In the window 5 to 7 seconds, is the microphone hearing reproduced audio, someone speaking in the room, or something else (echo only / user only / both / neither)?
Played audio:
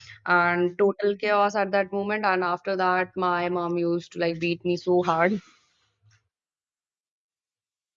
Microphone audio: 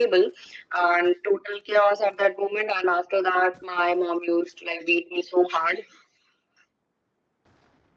echo only